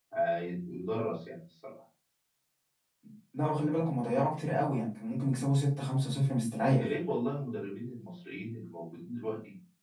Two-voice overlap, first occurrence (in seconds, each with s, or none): none